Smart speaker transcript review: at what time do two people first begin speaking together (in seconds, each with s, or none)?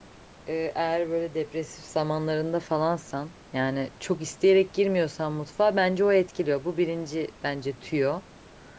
none